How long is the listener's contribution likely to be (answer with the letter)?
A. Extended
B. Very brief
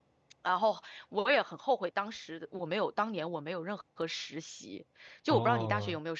A